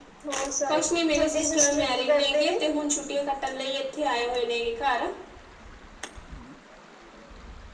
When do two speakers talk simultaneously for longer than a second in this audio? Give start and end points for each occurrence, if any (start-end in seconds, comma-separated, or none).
0.7-2.6